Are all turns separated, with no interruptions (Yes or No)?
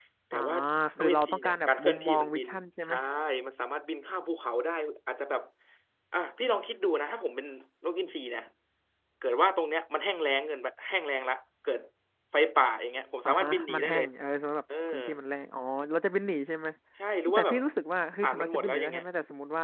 No